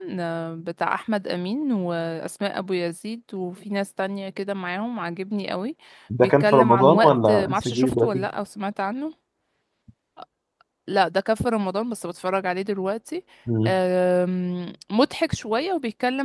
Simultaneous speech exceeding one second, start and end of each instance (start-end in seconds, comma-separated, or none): 6.2-8.3